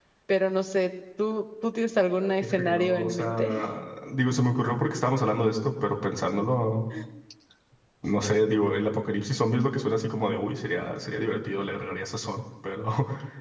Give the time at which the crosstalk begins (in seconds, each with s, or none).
2.2 s